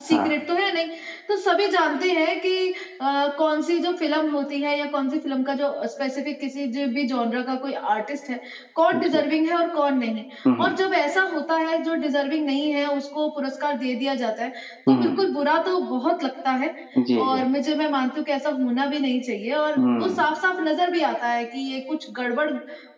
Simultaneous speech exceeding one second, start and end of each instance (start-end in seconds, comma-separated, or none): none